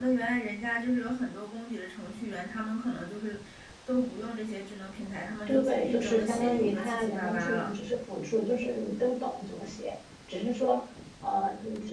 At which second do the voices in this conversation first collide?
5.5 s

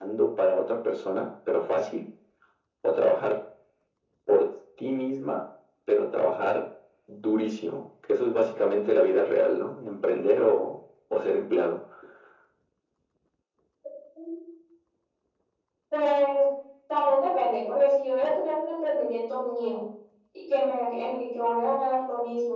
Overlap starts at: none

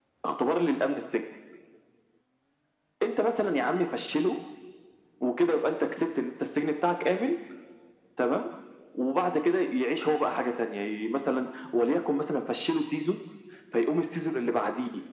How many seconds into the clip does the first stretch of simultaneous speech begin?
none

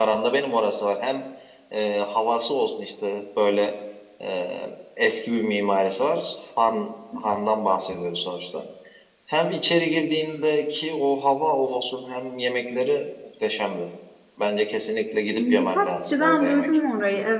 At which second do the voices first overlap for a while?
15.4 s

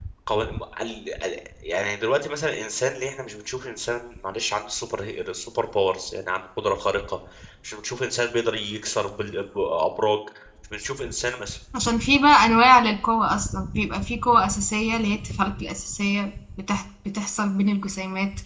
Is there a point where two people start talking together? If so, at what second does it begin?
none

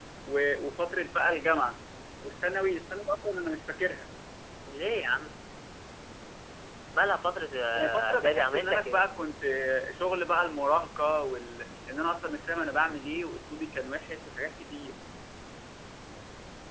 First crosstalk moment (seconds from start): 7.7 s

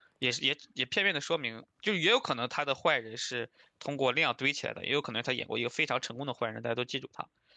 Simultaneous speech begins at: none

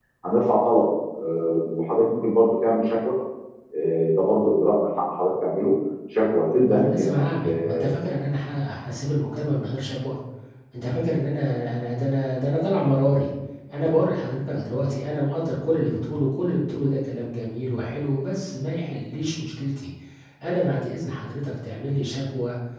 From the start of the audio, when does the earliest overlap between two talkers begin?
6.7 s

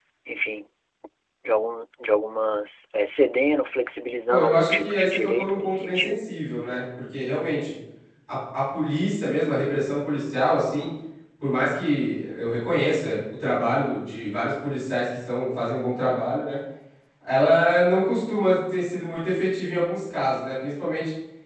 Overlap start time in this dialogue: 4.3 s

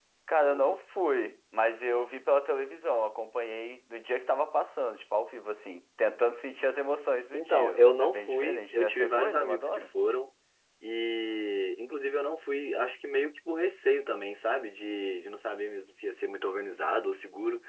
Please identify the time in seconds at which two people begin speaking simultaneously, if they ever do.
7.3 s

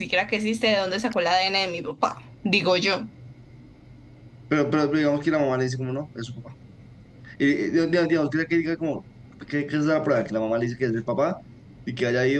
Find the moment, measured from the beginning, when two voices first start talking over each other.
none

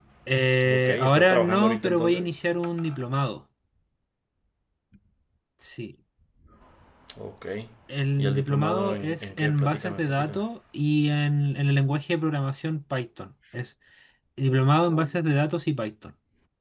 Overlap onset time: 0.7 s

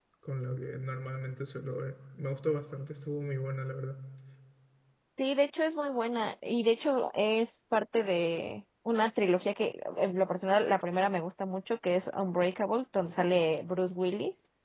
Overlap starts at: none

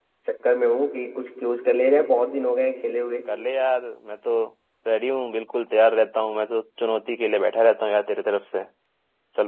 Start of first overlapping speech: none

